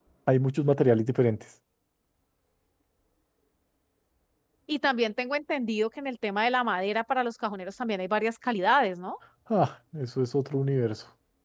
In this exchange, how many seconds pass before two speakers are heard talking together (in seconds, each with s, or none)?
none